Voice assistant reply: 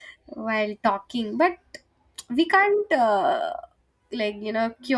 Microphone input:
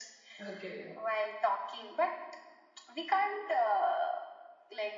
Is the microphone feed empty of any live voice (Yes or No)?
No